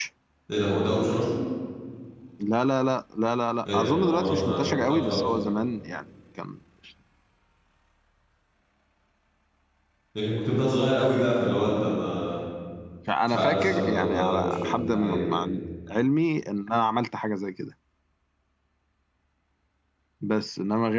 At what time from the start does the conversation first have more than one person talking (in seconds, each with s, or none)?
3.7 s